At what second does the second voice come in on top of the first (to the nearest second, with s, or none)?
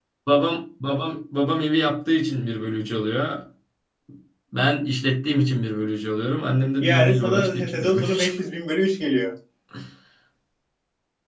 7 s